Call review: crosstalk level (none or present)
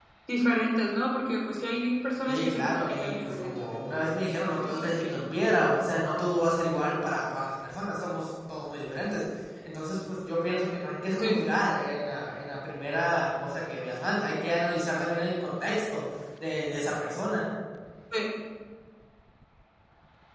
present